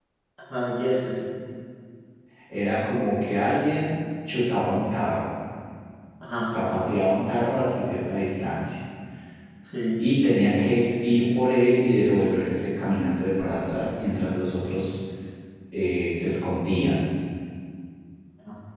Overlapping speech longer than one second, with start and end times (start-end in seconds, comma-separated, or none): none